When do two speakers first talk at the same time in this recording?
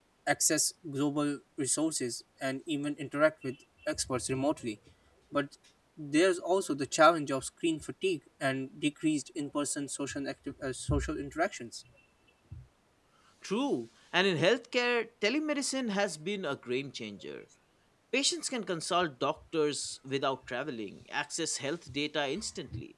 none

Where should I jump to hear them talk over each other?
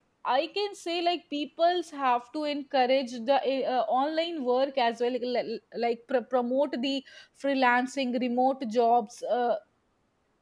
none

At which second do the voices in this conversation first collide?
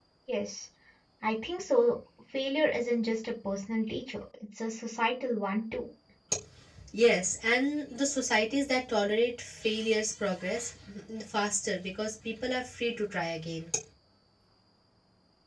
none

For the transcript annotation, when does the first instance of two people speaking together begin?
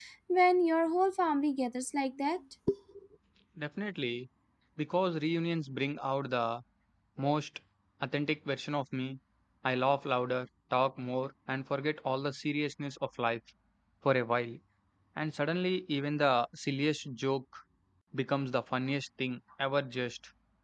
none

